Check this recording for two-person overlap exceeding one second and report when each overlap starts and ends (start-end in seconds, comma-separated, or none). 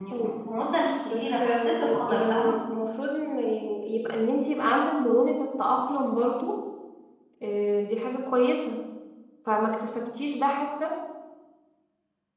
1.1-2.5